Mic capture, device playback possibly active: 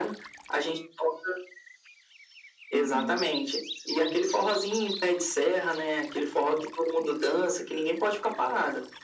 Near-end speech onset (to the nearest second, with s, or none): 3 s